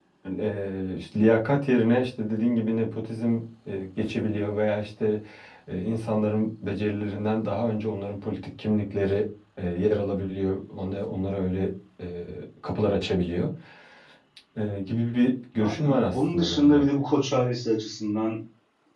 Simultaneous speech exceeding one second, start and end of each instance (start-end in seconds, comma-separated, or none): 15.6-16.8